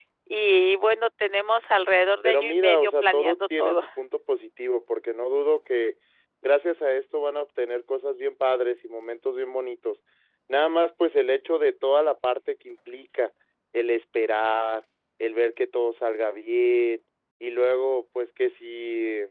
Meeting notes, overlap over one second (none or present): present